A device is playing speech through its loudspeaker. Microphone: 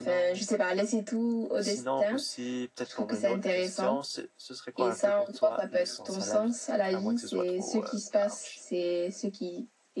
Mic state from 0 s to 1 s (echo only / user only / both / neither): both